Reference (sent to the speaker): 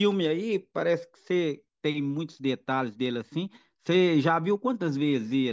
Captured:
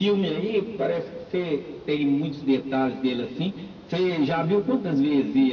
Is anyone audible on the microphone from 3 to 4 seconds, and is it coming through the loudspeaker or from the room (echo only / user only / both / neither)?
echo only